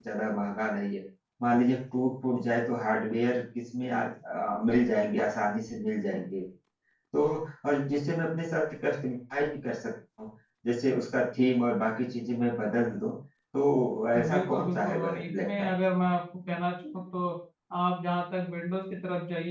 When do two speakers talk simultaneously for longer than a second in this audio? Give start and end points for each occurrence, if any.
14.2-15.7

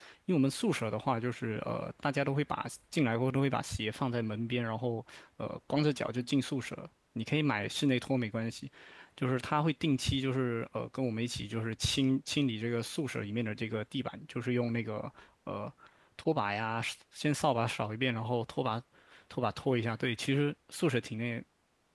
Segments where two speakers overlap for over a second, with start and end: none

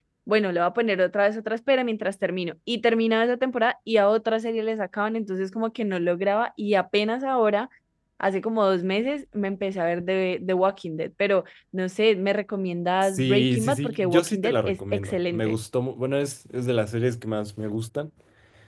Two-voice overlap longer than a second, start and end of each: 13.0-15.6

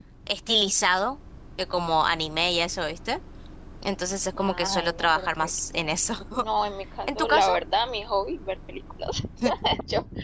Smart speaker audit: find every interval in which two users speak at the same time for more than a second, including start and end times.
4.4-5.9

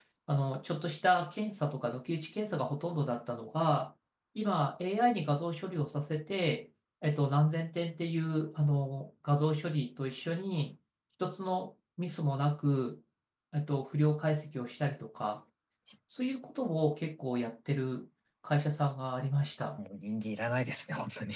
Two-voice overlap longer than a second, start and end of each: none

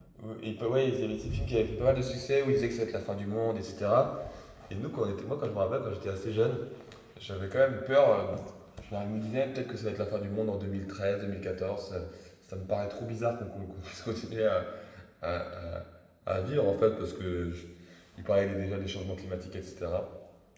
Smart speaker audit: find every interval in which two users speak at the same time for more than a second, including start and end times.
none

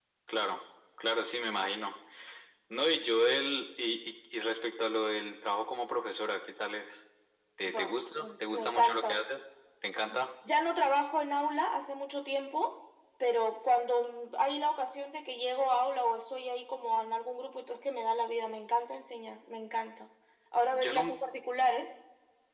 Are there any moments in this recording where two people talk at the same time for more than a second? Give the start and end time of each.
7.7-9.1

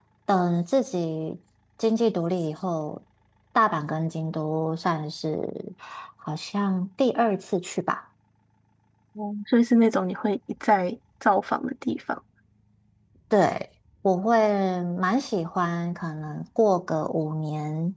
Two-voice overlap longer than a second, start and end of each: none

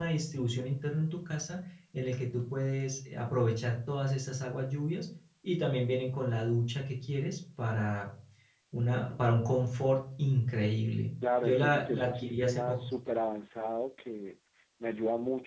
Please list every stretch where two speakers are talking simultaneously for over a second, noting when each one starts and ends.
11.4-12.8

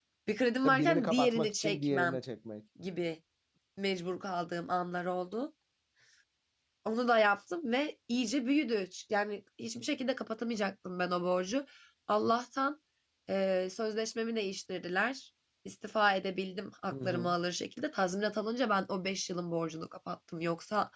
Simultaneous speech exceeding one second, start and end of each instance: 0.6-2.2

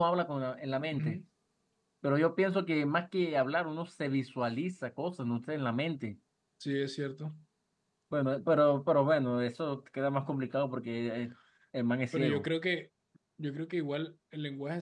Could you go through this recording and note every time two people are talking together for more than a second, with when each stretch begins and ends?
none

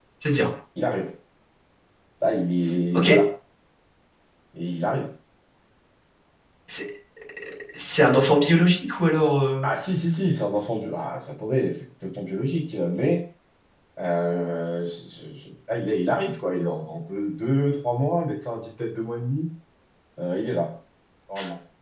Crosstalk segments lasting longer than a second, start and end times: none

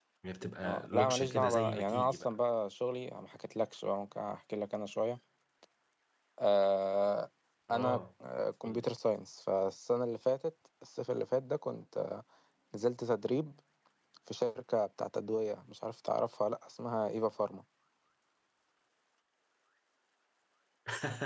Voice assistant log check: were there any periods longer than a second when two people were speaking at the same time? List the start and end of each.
0.6-2.4

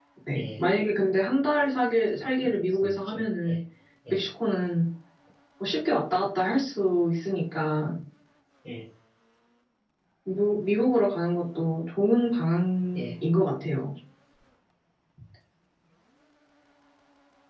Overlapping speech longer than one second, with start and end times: 2.1-3.6

